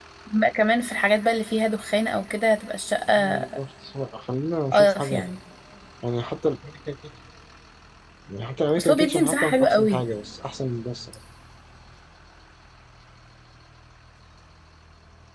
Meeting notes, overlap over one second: present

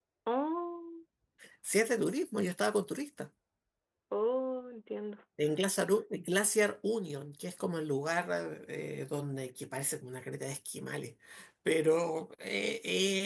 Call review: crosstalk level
none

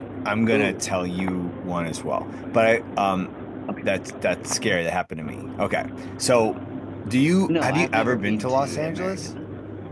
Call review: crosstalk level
present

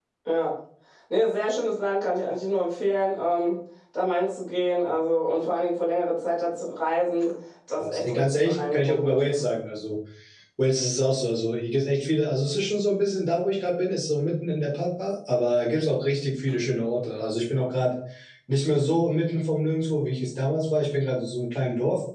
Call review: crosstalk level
present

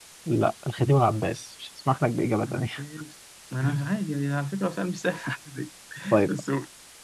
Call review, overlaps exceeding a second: none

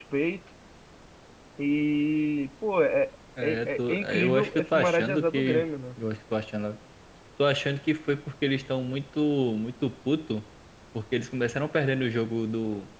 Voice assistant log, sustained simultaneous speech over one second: present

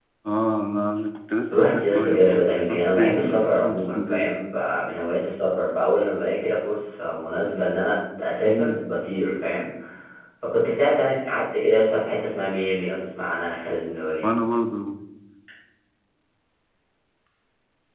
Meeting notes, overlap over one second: present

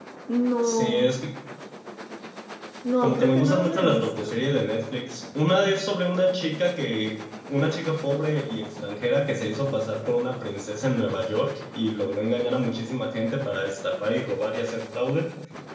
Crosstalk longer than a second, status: present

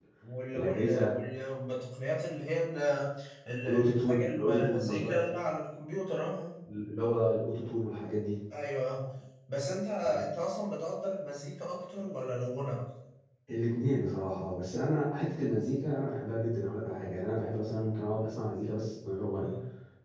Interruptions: present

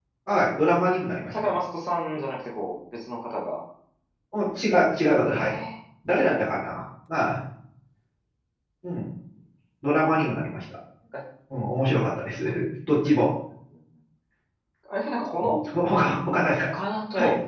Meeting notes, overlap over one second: none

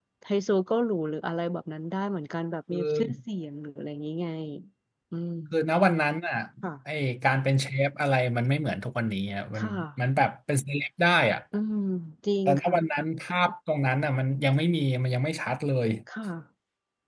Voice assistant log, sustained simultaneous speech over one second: none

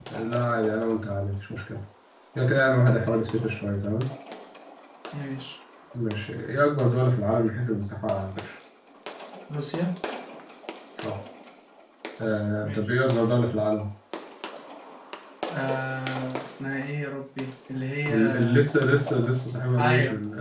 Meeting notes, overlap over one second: none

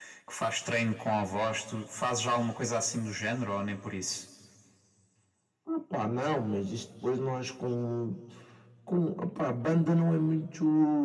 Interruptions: none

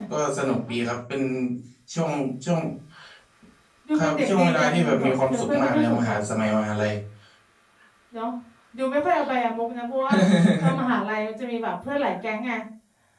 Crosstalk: present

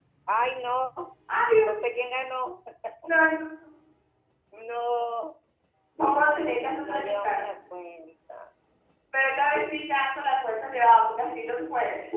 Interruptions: present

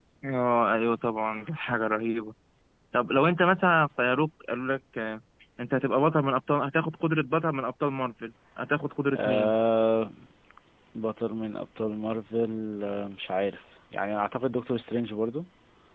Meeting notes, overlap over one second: none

